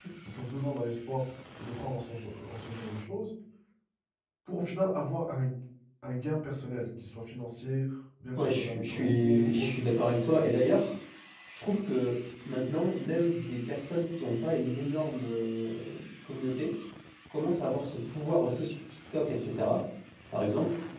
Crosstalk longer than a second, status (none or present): present